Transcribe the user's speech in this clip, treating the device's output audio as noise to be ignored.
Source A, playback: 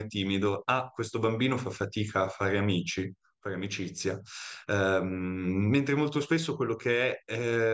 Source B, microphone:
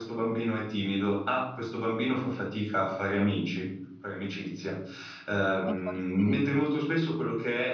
Ma forse,

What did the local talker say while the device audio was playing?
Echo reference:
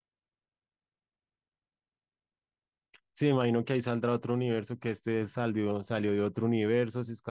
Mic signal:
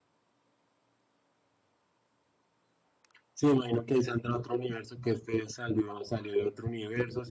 none

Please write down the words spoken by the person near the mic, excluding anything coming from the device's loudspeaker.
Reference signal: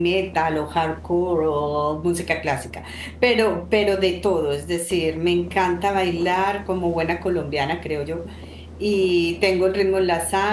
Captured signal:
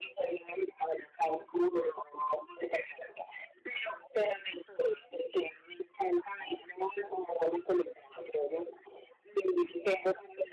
none

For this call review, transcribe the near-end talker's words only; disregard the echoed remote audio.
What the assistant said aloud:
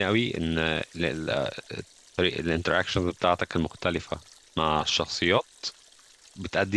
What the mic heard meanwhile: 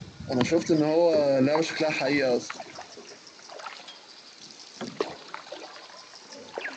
انا شفت ان هو لعبه شكلها حقيقه اصلا

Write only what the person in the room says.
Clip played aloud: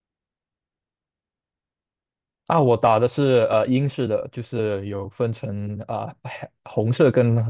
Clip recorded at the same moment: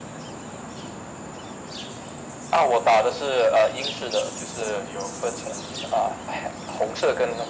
none

